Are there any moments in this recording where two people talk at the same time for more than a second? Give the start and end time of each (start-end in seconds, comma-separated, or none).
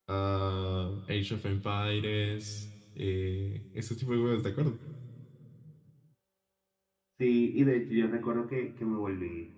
none